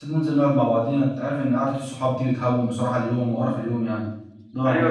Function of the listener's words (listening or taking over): taking over